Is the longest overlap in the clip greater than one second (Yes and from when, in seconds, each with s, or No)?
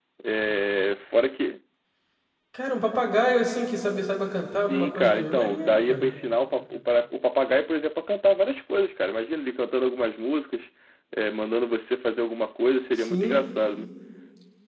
Yes, from 4.5 s